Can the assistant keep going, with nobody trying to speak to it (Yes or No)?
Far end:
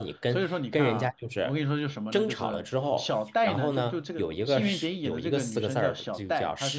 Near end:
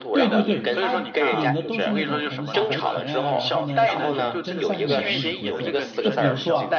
No